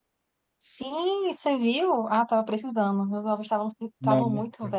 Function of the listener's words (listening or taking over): listening